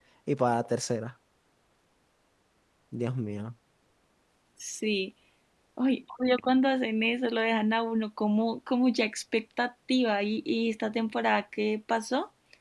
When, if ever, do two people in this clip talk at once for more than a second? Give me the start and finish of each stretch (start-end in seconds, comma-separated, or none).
none